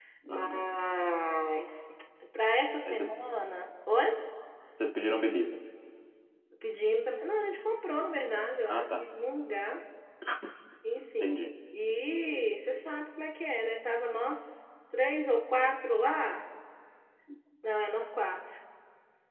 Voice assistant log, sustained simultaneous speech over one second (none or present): none